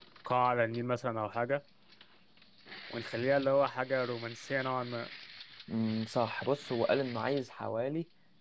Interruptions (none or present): none